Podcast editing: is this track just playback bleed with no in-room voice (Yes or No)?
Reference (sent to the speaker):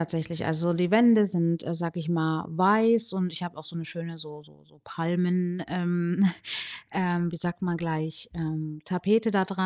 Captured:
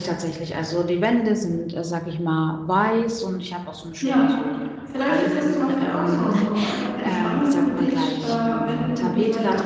No